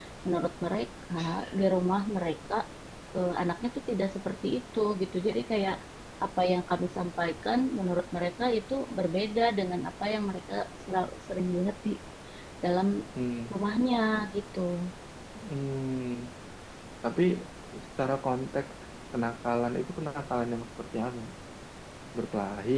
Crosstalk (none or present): none